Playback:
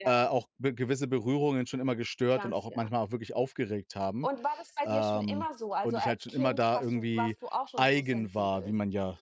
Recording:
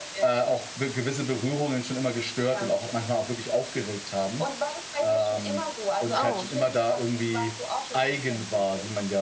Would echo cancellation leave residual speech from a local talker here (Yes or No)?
Yes